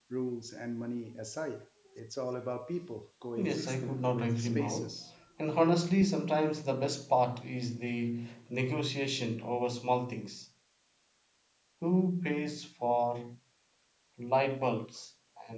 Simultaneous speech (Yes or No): Yes